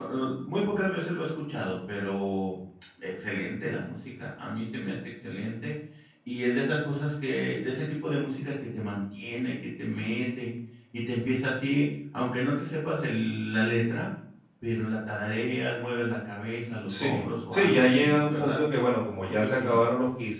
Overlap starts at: 16.9 s

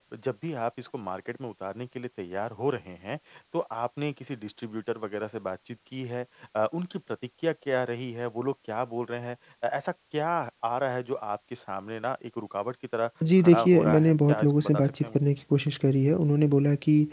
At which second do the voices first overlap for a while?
13.2 s

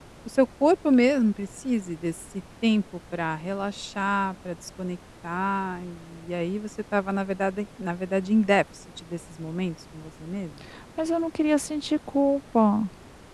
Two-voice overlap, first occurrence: none

